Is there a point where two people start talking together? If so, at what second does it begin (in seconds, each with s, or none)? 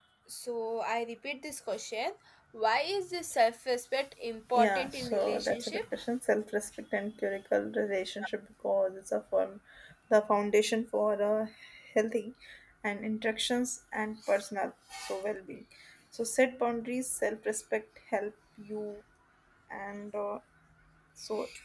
4.5 s